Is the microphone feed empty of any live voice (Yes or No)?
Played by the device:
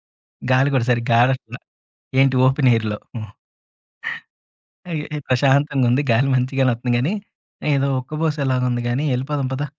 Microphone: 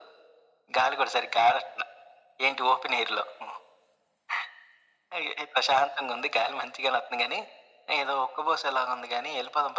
Yes